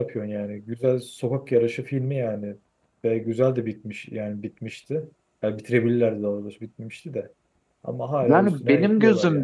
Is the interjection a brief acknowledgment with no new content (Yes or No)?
No